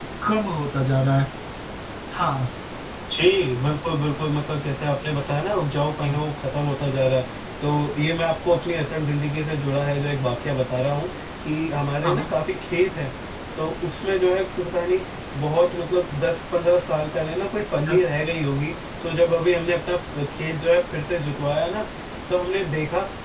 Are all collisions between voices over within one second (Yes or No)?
Yes